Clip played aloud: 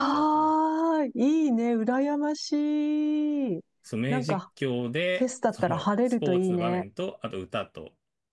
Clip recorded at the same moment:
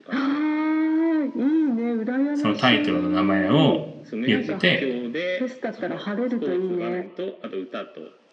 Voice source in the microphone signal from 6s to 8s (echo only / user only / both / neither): echo only